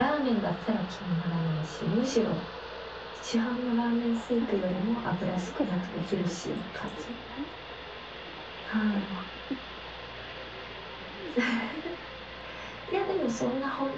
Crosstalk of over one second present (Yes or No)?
Yes